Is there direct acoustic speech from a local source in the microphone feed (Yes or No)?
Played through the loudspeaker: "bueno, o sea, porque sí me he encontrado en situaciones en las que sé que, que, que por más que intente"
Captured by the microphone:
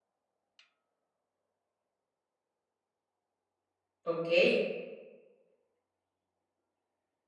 Yes